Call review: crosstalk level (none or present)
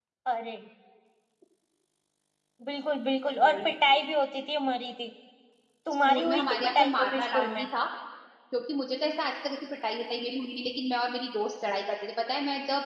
present